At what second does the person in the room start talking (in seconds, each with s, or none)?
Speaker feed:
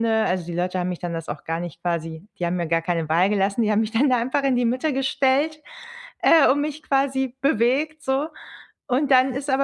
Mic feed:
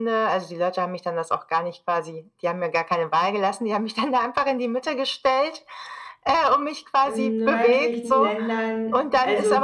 7.0 s